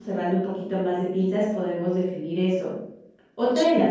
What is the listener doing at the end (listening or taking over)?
listening